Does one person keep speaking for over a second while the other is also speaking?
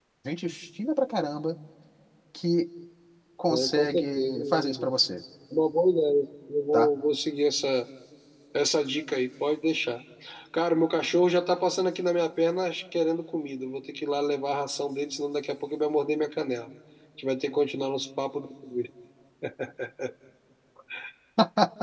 Yes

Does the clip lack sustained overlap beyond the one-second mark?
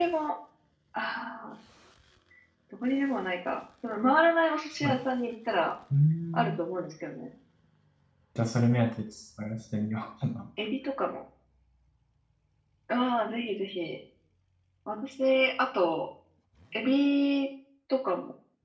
Yes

